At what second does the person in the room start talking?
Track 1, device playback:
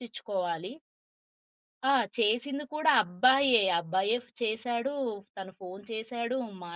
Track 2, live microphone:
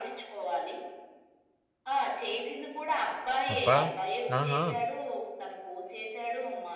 3.5 s

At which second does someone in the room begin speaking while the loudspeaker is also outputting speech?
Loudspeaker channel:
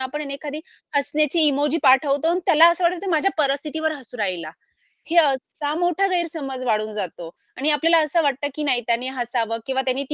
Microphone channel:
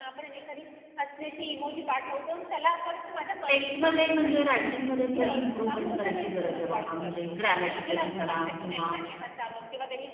3.5 s

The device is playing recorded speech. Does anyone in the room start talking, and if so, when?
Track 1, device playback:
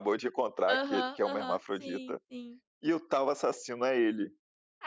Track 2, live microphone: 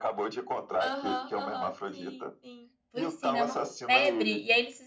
2.9 s

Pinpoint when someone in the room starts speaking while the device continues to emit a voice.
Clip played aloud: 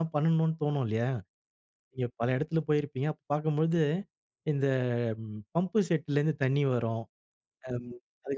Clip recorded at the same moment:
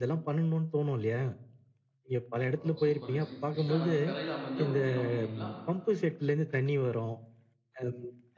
2.5 s

